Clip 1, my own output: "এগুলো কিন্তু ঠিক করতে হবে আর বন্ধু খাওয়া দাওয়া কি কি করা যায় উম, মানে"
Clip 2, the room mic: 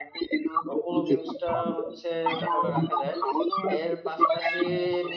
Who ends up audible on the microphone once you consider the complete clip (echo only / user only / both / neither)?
both